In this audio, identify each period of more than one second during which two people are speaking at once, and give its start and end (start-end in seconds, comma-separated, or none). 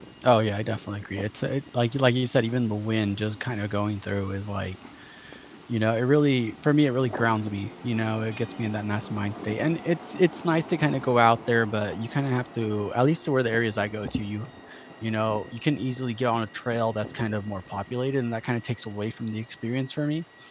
none